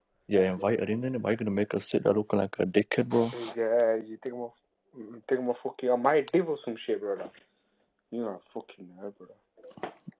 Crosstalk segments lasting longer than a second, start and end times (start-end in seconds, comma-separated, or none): none